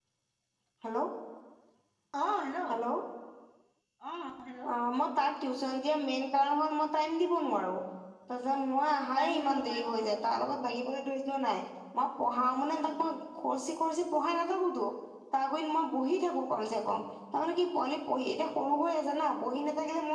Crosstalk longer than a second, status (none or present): present